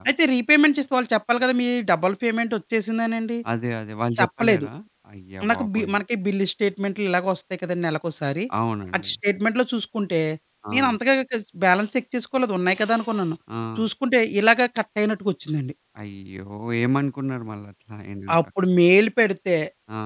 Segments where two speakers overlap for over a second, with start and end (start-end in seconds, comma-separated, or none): none